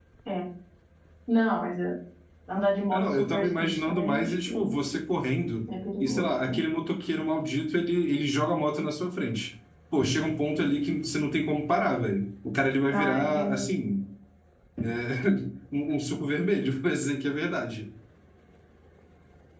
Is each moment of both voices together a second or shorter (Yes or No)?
No